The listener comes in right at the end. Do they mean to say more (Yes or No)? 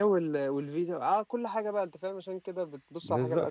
Yes